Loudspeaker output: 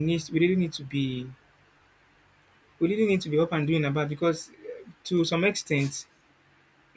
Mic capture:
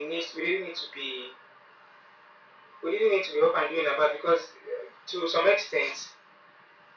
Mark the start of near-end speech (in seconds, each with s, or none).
none